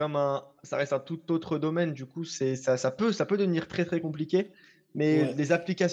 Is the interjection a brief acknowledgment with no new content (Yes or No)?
Yes